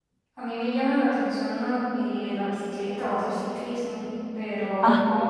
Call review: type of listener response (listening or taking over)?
listening